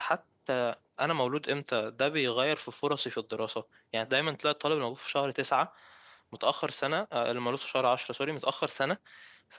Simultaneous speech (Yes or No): No